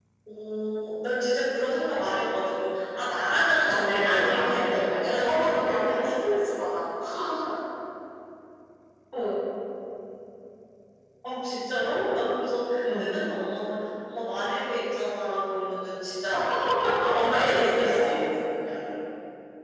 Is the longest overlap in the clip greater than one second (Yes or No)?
Yes